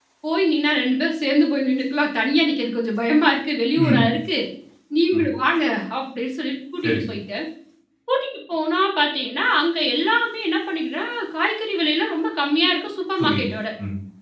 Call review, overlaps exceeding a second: none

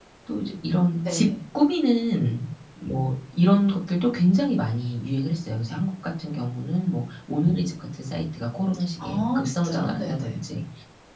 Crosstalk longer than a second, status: present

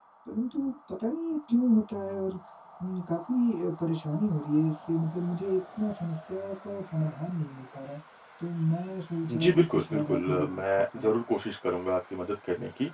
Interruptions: present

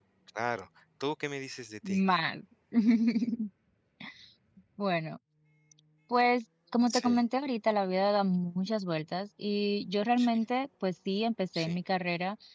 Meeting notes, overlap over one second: none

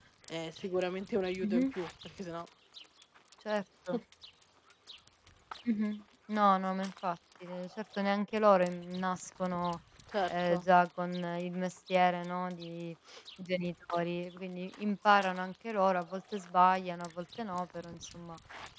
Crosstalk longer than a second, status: none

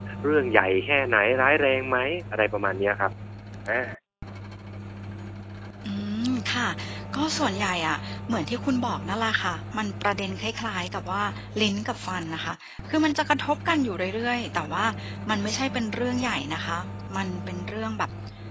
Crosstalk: none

